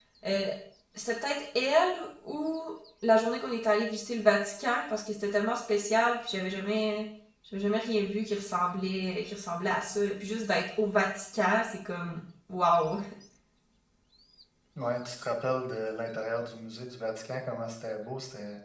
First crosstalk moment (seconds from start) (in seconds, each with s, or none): none